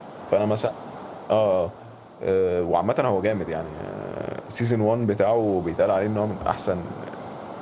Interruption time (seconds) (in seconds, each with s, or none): none